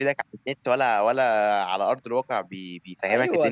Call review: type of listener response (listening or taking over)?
taking over